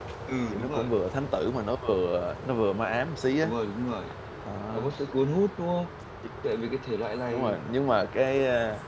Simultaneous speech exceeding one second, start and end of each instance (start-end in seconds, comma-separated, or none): none